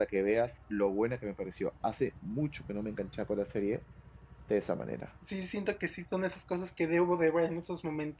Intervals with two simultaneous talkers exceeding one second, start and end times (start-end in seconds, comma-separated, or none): none